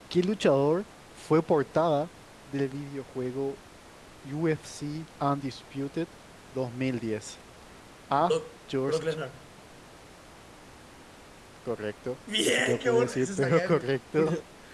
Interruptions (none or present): present